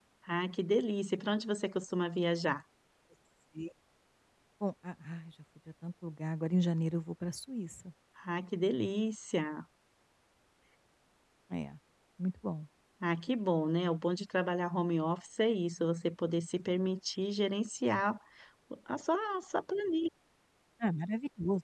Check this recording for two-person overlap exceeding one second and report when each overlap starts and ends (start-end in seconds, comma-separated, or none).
none